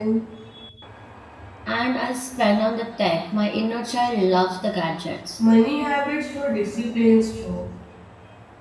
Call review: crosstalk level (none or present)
none